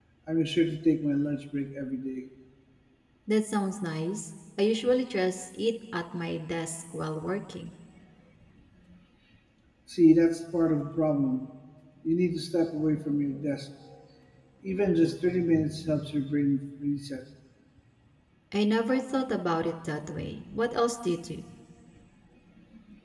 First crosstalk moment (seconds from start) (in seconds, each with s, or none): none